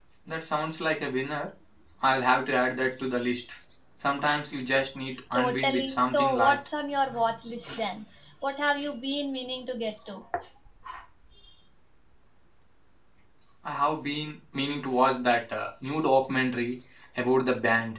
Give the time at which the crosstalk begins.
5.3 s

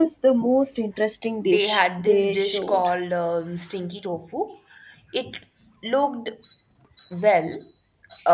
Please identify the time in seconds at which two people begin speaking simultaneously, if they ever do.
1.5 s

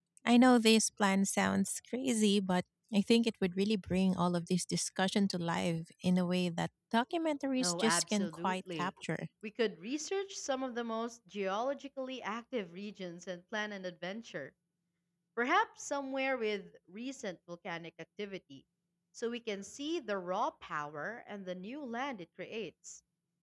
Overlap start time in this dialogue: 7.6 s

